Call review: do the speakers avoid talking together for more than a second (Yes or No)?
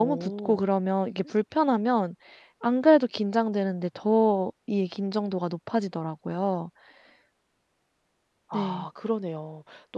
Yes